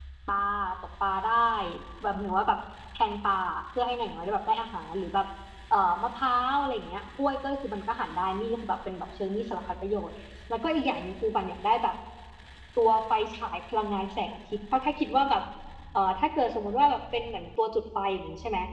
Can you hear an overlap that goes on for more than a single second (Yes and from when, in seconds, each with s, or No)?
No